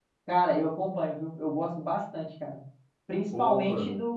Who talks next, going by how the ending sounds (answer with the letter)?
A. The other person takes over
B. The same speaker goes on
B